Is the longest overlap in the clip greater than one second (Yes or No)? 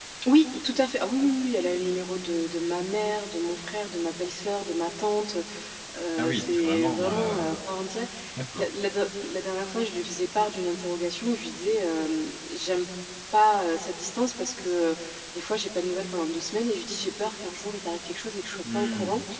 Yes